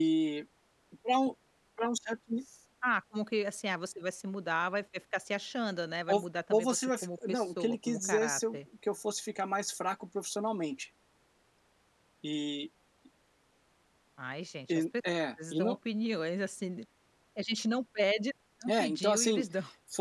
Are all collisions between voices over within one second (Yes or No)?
No